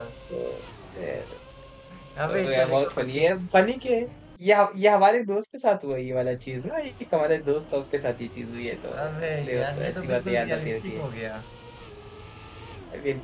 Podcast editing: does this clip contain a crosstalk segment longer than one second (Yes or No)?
Yes